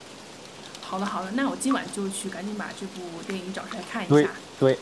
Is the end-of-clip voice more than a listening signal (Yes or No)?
Yes